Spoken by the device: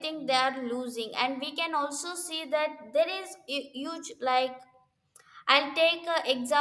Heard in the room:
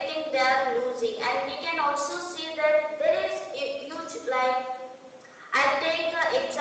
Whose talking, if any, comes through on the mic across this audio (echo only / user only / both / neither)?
echo only